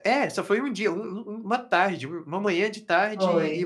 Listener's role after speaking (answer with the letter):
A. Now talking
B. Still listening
B